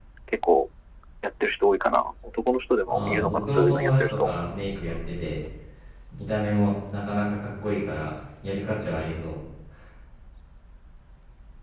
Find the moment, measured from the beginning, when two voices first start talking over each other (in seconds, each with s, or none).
2.9 s